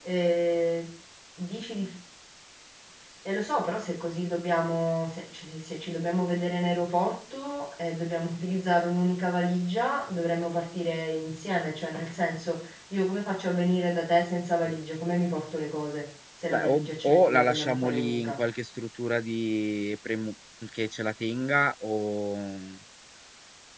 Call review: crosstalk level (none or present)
present